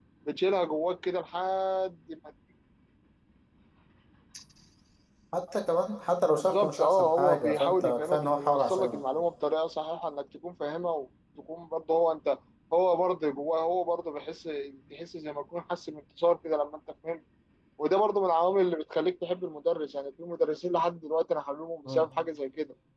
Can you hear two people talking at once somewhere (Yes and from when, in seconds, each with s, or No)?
Yes, from 6.3 s